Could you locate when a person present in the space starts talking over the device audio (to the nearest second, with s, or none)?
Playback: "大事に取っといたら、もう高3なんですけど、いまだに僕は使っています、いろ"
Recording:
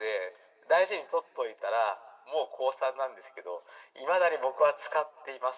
none